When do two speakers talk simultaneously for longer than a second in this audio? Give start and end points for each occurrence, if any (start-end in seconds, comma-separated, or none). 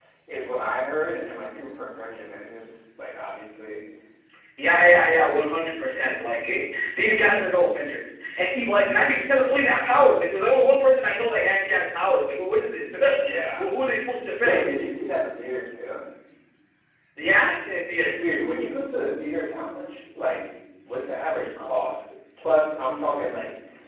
none